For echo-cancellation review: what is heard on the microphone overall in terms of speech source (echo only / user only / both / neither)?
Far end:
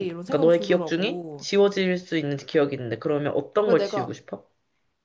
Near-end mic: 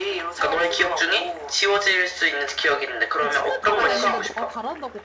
both